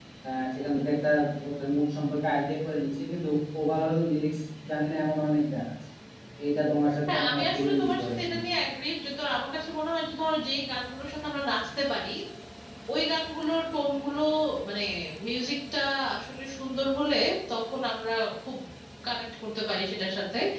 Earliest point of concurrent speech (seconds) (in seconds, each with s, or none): 7.1 s